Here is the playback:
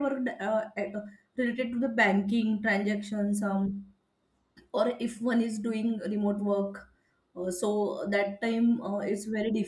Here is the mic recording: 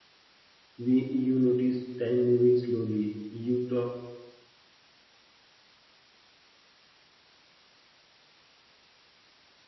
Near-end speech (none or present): present